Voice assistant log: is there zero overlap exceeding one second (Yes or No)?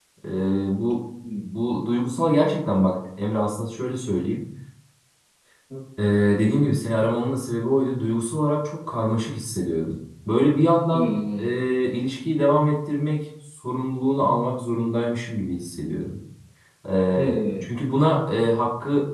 Yes